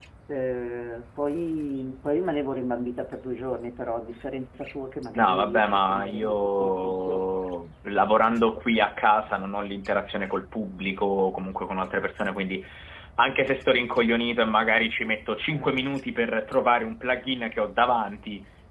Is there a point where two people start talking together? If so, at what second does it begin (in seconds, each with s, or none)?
5.2 s